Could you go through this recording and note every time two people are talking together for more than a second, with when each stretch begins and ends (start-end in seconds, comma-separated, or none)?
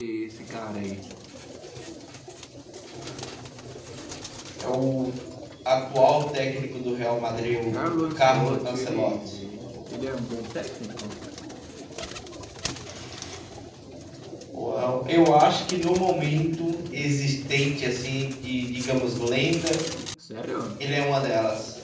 7.7-9.4